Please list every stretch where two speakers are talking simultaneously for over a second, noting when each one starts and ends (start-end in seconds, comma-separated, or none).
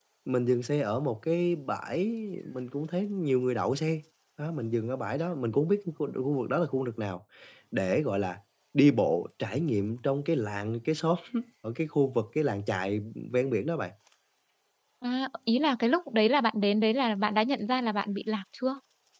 none